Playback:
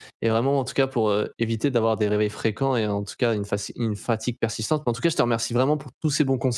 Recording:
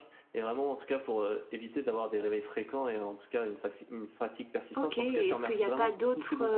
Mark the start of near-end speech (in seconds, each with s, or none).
4.7 s